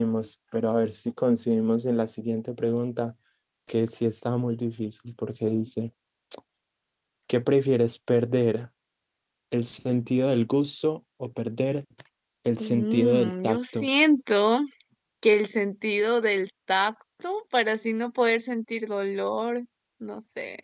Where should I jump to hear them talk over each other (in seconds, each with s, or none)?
12.6 s